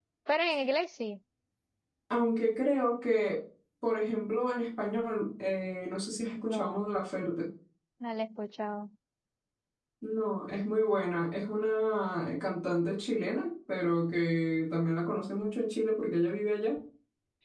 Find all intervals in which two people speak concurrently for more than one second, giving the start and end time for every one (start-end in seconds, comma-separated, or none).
none